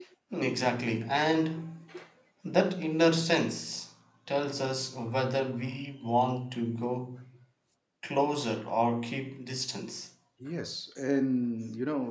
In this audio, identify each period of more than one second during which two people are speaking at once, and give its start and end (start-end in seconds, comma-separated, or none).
none